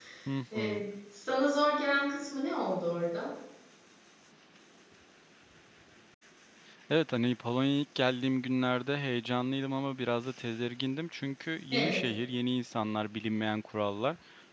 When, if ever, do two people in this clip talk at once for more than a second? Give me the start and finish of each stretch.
none

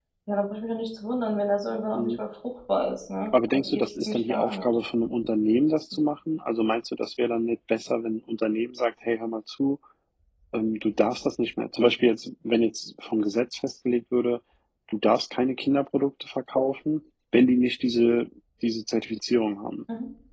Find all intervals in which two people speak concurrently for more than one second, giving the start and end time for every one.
3.3-4.7

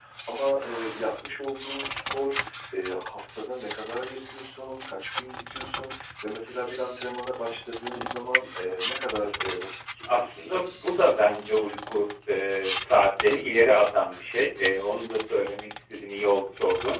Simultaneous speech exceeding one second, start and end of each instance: none

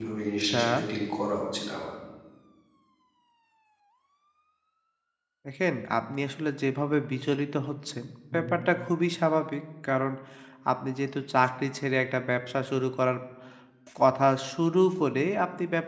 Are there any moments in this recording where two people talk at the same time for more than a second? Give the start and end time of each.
none

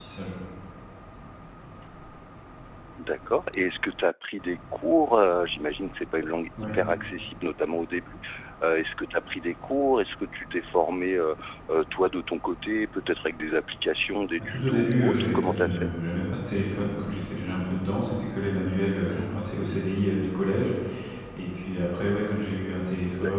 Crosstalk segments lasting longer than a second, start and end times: 14.4-15.9

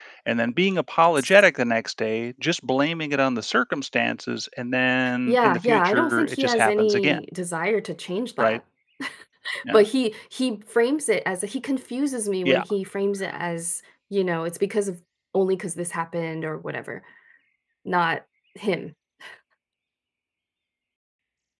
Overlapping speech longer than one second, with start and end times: 5.3-7.2

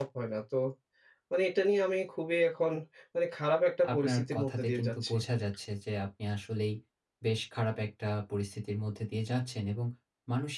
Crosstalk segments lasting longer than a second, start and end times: 3.9-5.2

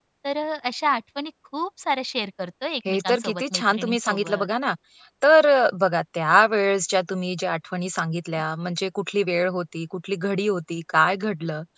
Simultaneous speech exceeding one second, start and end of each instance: 2.9-4.5

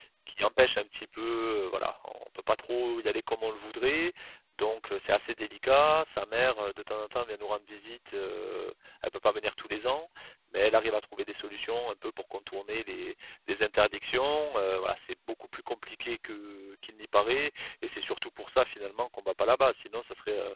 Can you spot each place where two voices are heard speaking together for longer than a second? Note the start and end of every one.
none

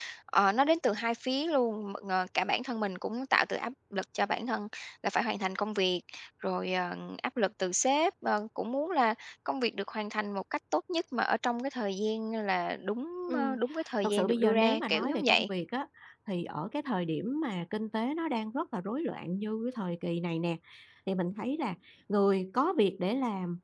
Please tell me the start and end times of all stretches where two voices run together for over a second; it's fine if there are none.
14.0-15.5

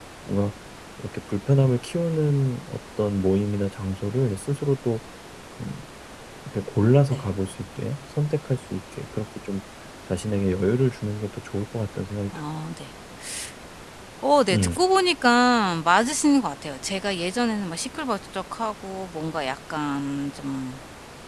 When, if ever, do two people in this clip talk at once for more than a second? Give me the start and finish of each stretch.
none

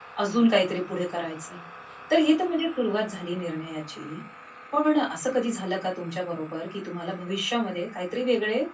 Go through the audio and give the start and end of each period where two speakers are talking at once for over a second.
none

